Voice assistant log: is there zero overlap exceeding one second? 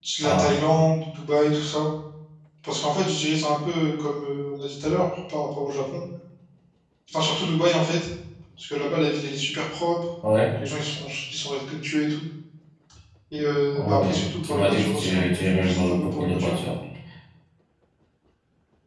No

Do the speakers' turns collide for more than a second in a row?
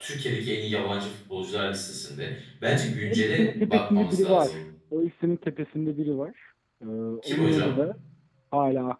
Yes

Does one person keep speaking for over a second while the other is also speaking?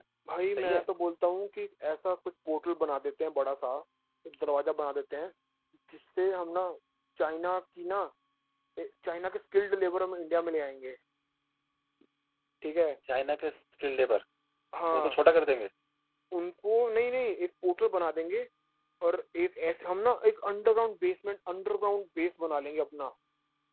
No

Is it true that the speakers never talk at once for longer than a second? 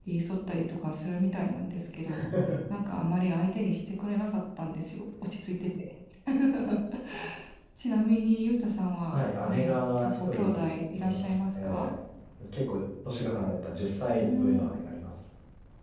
No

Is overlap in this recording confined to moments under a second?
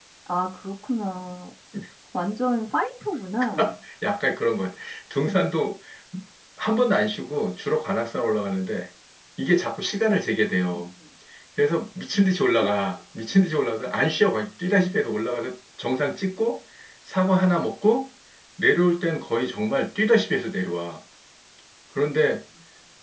Yes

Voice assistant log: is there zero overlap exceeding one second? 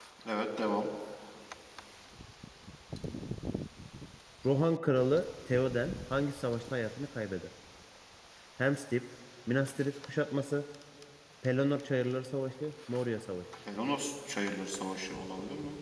Yes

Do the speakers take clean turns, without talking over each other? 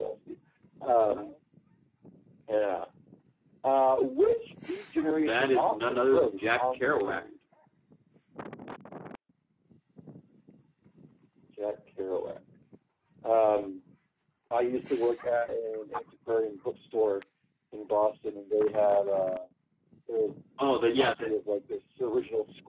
No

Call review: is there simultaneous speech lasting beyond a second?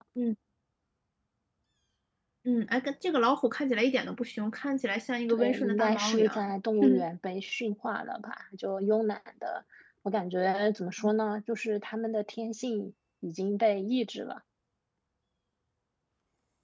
Yes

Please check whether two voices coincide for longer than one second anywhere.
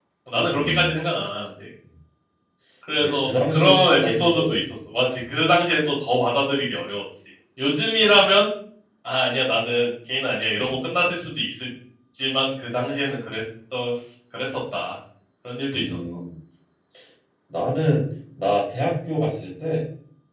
Yes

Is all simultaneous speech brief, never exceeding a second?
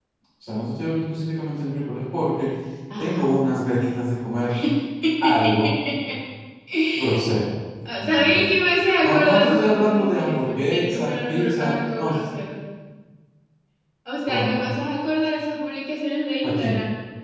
No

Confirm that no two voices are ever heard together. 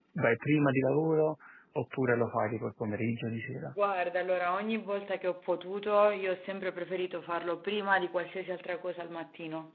Yes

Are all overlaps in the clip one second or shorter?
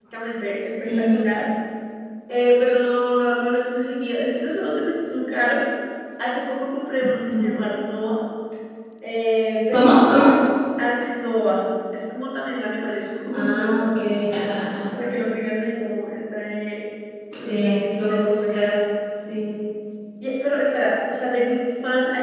No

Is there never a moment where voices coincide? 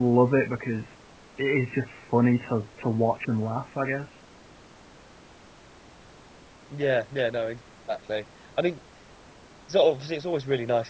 Yes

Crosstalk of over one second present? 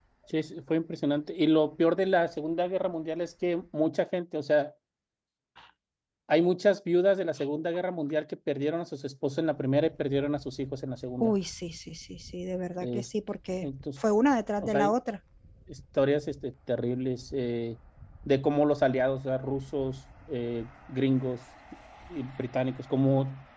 No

